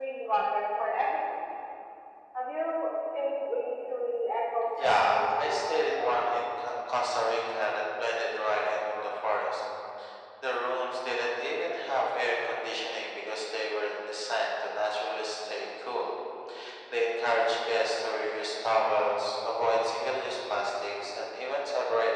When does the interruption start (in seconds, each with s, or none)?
4.7 s